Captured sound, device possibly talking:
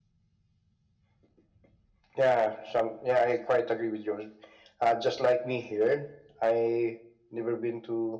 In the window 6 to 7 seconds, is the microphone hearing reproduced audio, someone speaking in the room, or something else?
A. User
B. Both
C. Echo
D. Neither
C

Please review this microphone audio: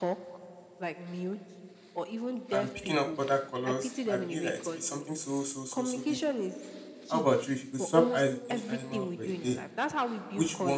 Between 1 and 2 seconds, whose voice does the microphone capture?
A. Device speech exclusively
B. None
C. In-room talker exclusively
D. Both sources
A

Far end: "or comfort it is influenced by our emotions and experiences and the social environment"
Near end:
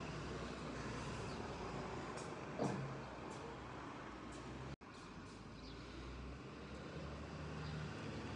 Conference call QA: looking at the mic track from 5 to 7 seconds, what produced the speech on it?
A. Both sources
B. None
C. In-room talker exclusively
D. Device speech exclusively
B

